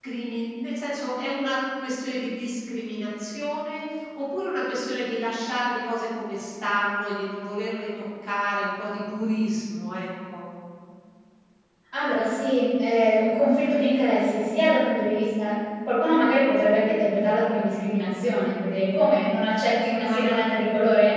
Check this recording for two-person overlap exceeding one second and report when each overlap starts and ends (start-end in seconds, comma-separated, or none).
none